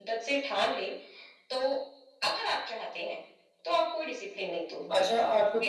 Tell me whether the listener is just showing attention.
No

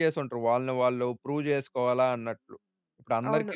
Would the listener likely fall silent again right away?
No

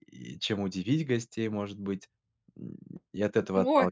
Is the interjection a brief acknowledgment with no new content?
No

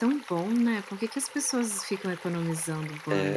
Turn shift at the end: Yes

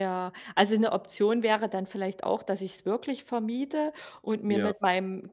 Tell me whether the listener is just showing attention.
Yes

